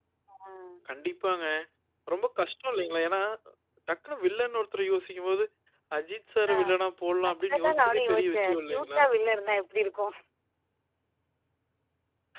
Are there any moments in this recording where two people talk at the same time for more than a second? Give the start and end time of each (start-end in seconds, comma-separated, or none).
7.3-9.0